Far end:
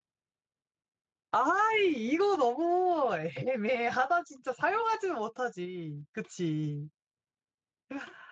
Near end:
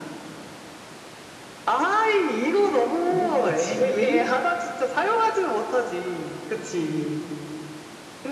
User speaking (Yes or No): Yes